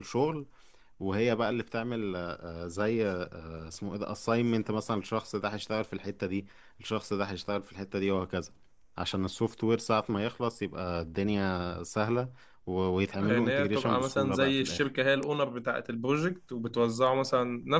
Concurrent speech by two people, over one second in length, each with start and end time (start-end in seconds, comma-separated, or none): 13.1-14.8